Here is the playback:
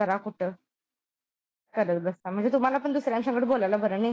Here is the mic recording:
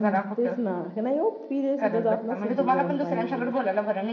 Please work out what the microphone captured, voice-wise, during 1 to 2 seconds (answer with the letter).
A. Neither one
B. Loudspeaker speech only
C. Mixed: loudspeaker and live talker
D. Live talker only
C